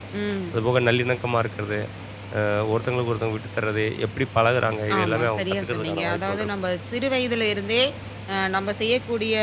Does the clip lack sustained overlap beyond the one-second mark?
No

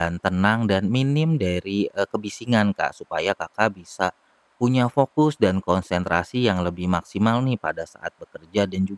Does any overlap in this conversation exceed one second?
No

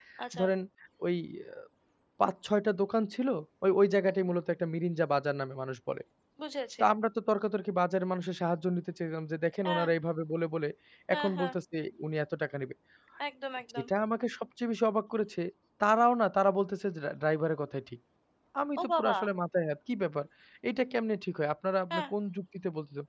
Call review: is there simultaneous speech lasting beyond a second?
No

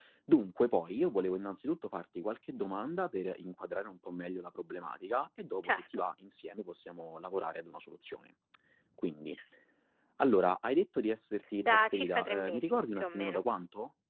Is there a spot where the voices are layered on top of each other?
Yes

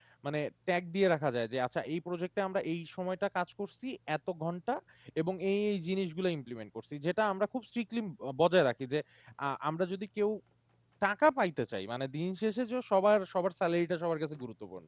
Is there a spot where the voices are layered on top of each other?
No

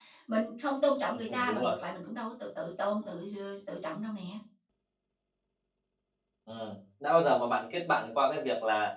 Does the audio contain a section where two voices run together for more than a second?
No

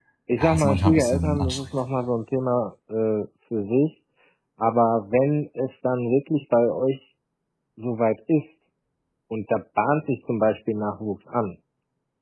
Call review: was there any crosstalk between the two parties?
Yes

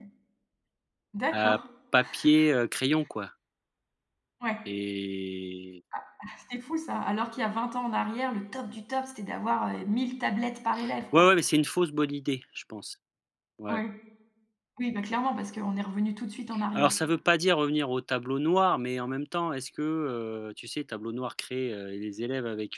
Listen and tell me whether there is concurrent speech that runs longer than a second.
No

